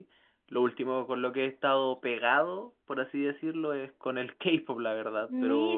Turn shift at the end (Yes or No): Yes